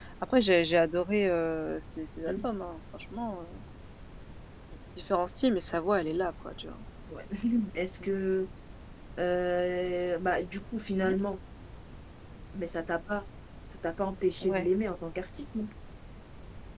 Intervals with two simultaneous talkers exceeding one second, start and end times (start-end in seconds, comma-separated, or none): none